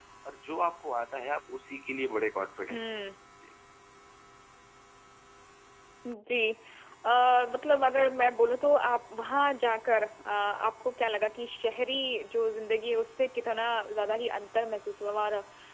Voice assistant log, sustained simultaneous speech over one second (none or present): none